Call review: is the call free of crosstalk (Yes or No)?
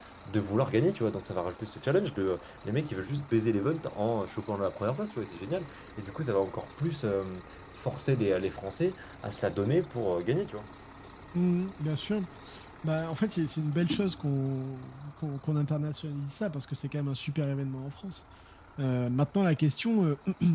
Yes